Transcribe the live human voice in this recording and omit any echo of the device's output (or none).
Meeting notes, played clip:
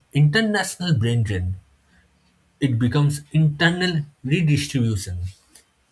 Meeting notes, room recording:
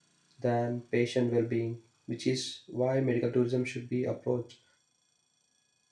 than patient well-being which is why medical tourism should be approached